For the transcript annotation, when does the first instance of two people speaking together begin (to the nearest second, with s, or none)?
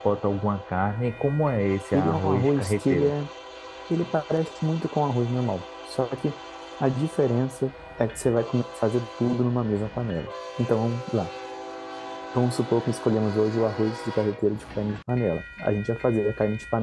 2 s